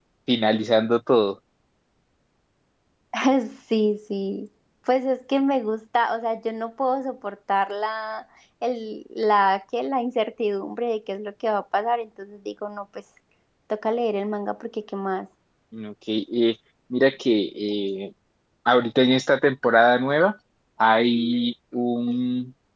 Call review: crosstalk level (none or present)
none